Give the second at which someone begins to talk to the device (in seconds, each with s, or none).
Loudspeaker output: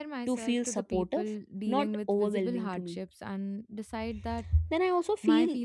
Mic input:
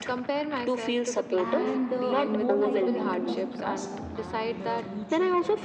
1.4 s